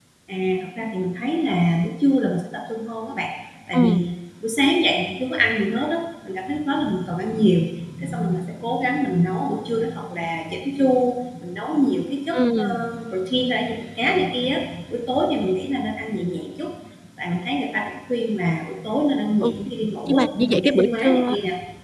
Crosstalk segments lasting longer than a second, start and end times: 20.1-21.3

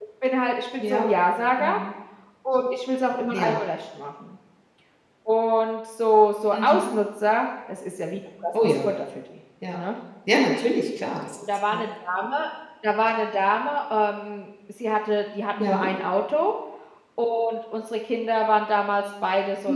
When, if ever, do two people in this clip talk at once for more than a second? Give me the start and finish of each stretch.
none

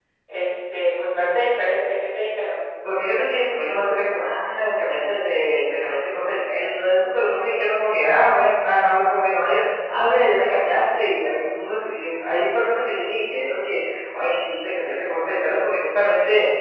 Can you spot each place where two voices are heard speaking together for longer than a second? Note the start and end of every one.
none

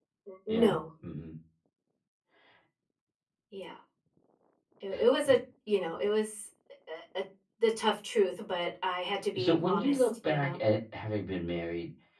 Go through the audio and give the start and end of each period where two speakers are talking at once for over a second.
9.4-10.6

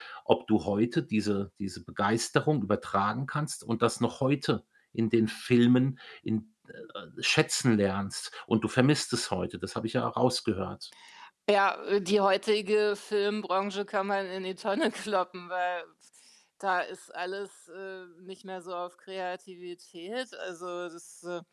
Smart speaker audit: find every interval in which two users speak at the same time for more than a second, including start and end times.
none

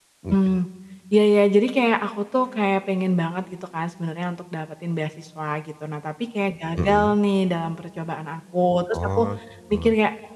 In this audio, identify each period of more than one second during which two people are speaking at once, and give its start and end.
none

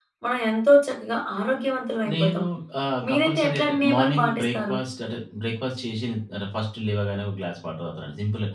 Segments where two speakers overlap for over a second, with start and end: 3.1-4.8

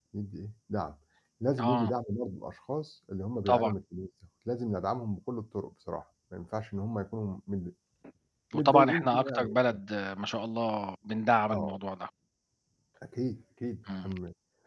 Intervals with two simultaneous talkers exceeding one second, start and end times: 8.6-9.8

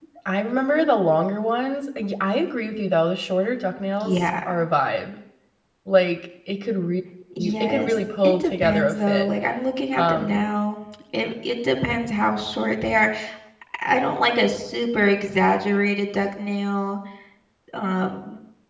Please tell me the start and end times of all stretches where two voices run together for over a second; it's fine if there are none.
7.4-9.3

